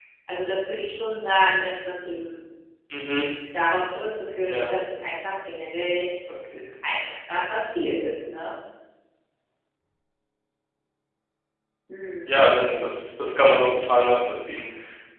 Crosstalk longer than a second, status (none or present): none